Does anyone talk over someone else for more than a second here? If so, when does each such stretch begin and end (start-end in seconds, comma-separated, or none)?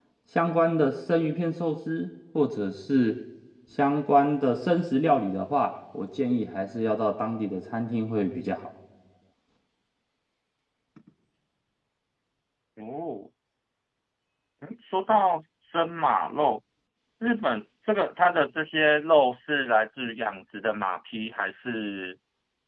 none